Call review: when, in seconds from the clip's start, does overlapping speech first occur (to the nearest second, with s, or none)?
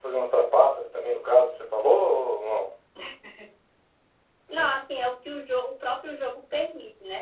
none